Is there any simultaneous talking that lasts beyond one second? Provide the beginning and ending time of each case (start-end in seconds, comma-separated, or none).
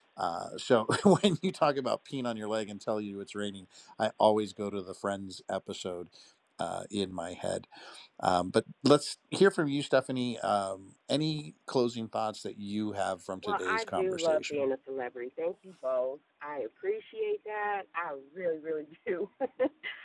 13.4-14.6